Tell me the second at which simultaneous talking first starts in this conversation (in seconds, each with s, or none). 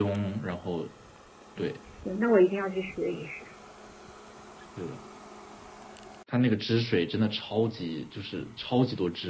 none